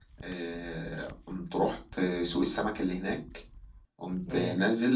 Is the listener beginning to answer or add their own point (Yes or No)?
No